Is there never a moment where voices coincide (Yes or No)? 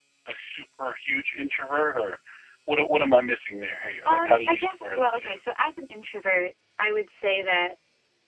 No